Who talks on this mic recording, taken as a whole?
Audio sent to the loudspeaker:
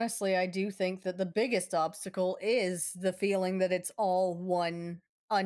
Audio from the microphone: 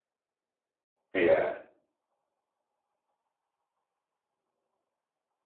user only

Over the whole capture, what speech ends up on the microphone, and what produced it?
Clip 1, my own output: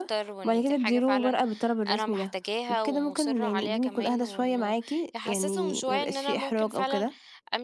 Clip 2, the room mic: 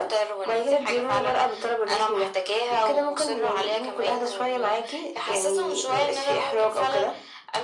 echo only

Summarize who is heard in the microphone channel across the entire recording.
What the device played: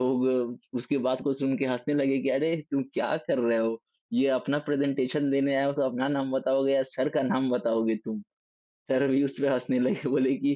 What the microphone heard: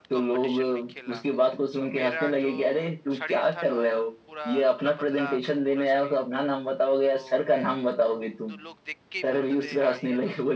both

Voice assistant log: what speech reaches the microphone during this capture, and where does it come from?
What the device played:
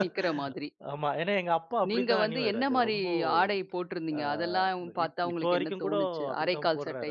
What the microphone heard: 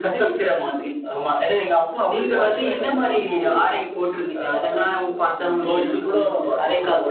echo only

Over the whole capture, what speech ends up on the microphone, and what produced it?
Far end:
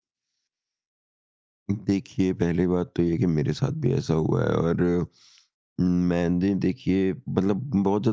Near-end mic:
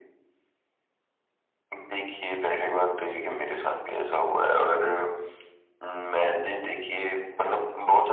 echo only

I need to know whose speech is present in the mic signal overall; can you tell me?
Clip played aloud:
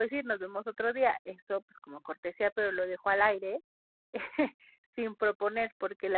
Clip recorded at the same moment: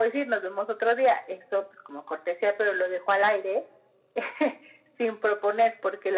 echo only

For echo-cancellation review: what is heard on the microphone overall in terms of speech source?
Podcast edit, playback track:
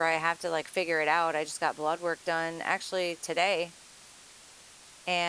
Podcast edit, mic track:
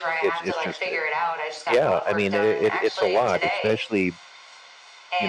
both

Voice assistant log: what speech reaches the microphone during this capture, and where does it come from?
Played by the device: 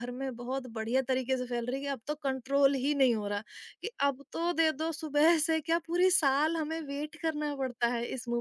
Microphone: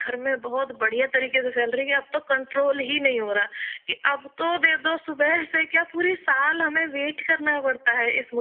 echo only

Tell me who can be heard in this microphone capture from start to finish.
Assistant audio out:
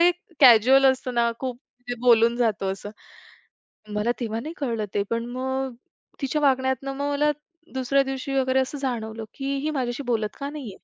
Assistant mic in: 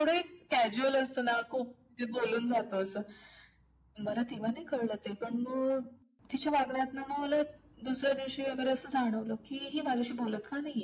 echo only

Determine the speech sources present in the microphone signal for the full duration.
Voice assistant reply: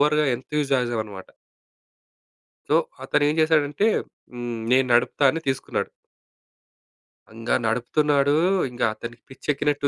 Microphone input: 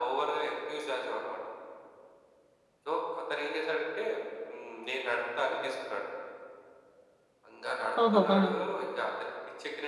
both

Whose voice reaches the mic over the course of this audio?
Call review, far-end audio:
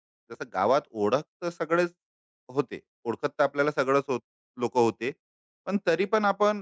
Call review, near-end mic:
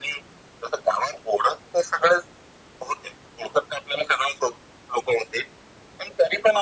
echo only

